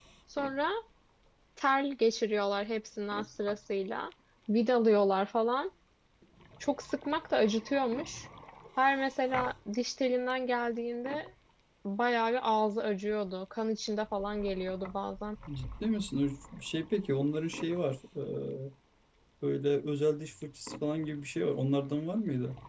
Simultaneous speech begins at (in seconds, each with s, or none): none